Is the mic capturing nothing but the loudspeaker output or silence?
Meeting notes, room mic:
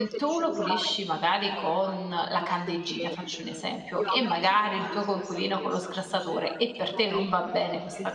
No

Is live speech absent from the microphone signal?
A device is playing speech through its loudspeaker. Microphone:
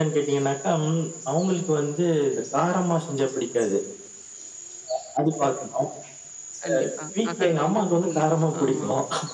No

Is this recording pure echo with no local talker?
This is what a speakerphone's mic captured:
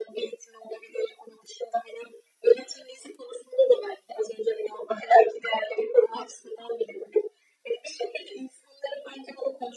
Yes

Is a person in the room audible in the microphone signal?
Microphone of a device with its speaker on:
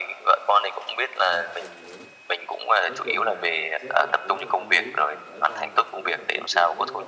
Yes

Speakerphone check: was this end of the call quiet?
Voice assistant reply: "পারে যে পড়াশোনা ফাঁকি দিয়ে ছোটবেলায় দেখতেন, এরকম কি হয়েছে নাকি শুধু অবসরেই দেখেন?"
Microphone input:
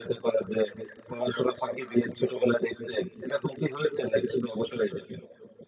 Yes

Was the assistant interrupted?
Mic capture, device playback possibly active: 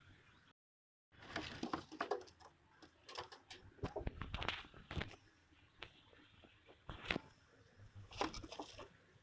No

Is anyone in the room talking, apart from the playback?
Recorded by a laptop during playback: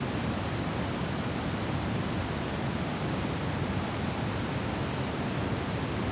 No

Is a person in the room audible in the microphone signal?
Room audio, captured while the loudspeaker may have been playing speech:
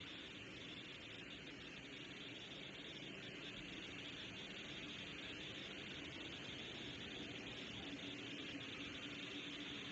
No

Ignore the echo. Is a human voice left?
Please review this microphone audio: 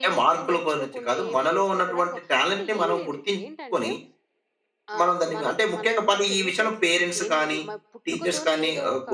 Yes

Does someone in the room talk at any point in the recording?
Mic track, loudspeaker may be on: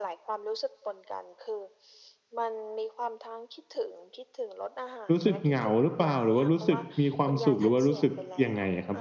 Yes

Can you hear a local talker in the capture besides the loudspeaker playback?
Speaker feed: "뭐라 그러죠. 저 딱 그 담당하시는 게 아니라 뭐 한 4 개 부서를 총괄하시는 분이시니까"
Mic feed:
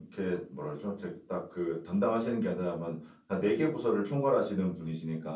No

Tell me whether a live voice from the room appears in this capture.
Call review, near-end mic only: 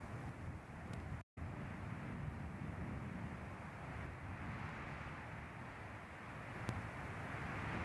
No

